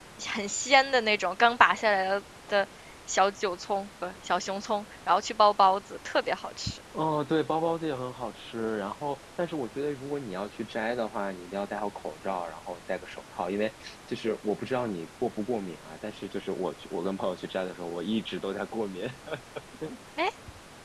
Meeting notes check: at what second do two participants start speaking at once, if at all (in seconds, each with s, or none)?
none